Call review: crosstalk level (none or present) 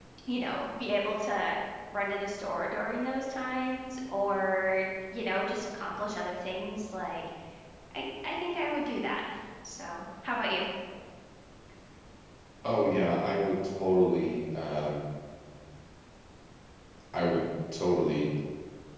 none